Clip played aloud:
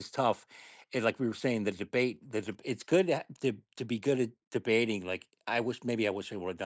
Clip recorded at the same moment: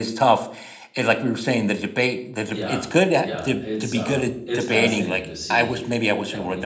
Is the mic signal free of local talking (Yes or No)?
No